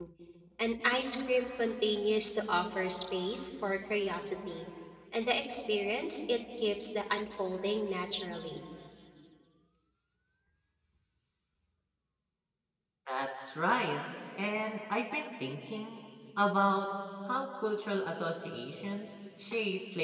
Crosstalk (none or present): none